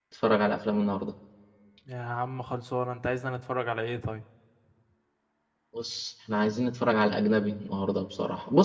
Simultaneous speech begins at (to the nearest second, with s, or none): none